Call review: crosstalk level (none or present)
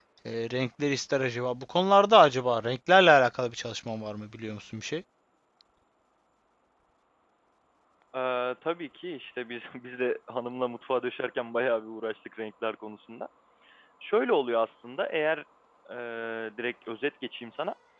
none